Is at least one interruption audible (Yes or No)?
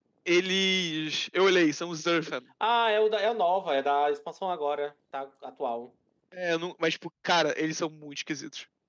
No